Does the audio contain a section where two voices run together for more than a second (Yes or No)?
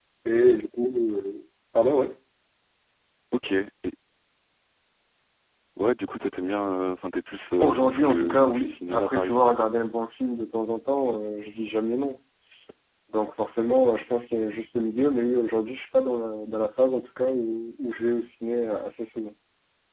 Yes